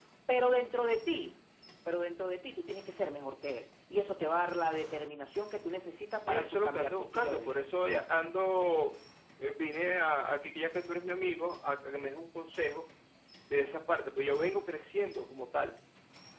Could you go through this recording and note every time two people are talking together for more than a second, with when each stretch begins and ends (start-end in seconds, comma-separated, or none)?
6.3-7.6